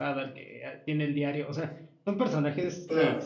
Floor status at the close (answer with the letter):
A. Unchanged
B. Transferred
A